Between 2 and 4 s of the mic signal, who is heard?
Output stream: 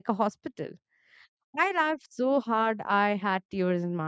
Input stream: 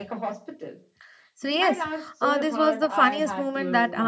both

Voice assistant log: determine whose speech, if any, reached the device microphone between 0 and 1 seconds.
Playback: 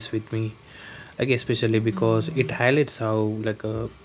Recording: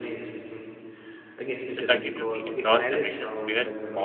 echo only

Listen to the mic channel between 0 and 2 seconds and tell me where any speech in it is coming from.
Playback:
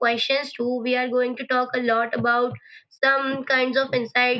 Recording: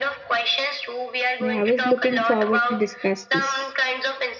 both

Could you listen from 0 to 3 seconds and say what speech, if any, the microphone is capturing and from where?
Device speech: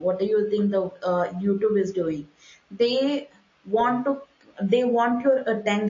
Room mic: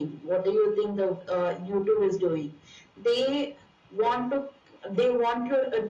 echo only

